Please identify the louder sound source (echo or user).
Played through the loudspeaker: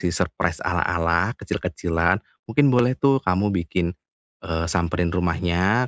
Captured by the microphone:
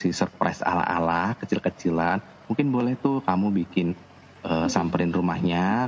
echo